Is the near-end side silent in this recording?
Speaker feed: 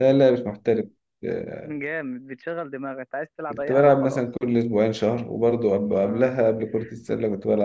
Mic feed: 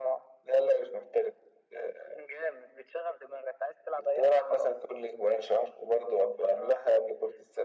Yes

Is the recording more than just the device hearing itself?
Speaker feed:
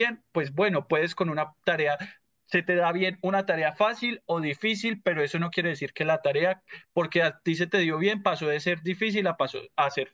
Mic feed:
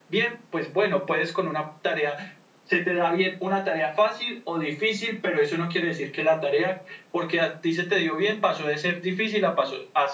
No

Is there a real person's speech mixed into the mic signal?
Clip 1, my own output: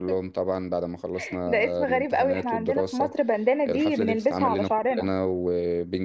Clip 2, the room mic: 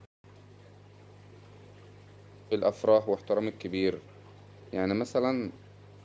Yes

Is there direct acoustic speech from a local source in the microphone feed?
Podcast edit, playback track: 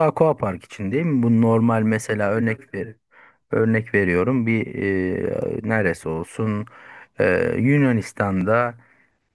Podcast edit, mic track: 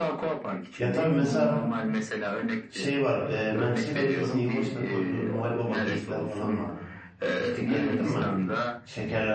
Yes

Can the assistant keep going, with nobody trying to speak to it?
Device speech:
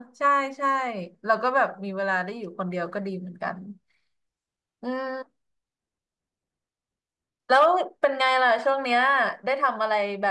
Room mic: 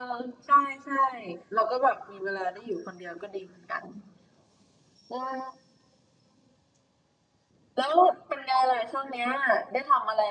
Yes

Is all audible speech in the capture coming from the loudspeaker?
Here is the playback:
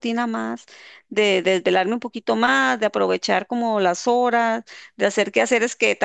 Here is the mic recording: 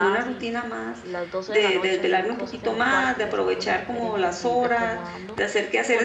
No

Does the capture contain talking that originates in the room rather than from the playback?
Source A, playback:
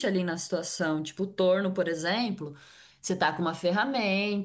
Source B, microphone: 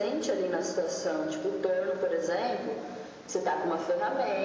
No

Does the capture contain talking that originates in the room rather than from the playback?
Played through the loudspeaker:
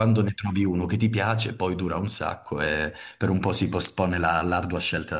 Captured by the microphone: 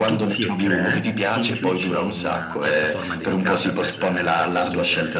Yes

